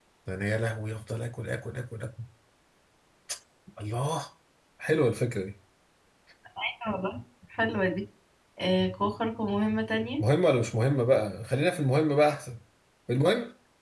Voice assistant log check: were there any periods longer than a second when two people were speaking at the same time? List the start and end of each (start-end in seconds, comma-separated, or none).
none